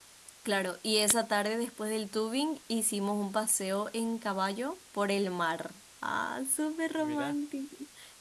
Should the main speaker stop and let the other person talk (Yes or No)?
No